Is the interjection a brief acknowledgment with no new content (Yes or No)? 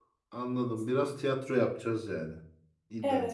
No